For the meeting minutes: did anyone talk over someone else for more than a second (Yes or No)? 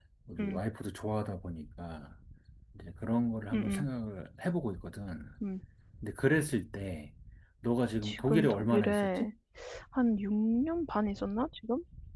Yes